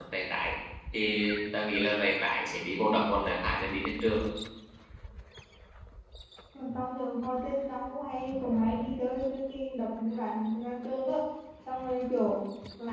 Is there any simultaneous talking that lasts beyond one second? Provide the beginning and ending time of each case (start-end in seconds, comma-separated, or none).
none